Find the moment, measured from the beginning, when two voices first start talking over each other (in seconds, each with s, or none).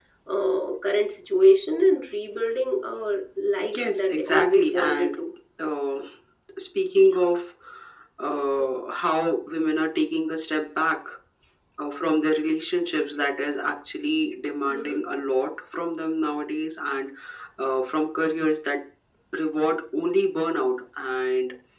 3.7 s